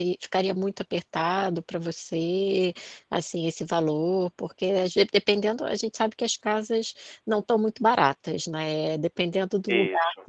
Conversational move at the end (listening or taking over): listening